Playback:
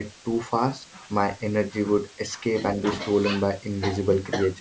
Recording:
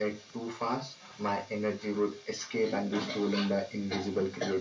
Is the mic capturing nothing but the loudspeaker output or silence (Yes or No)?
Yes